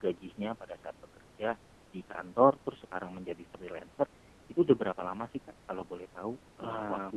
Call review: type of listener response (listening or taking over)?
taking over